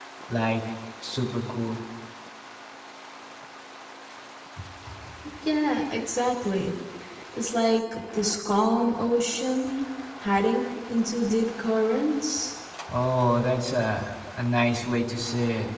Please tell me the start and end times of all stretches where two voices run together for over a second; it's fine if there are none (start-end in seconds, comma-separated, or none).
none